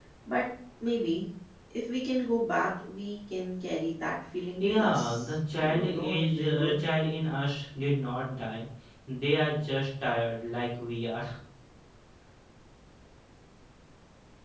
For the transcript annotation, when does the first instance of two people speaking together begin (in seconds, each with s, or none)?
4.6 s